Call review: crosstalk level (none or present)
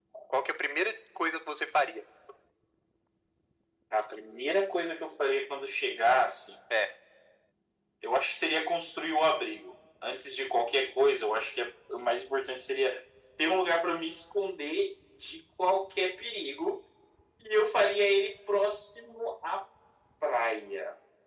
none